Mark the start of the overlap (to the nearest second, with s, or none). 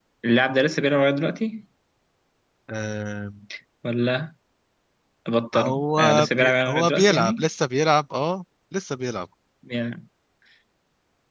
6 s